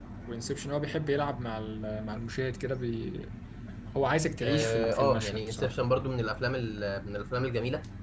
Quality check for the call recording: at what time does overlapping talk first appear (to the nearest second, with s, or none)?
4 s